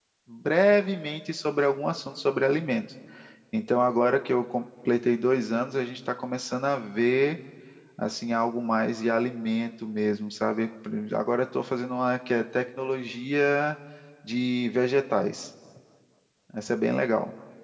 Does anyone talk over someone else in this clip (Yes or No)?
No